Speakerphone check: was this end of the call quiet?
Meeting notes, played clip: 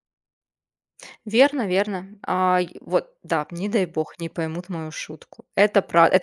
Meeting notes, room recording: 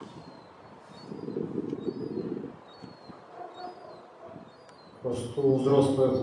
No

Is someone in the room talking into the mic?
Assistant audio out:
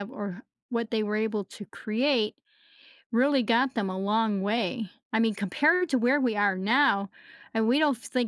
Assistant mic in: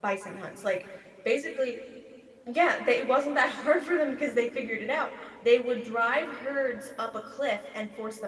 Yes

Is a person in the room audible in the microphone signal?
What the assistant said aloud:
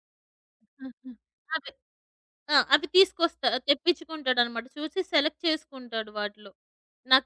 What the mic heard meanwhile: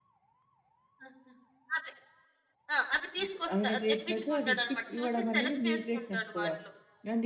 Yes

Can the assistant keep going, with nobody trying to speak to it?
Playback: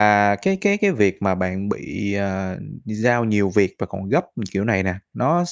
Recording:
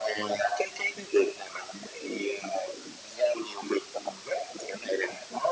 Yes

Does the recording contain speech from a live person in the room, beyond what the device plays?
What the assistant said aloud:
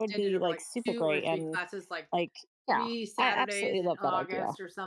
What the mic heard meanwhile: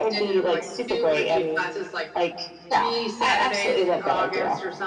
No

